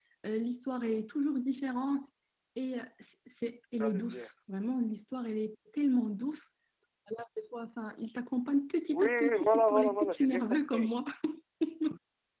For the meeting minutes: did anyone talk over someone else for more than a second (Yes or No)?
Yes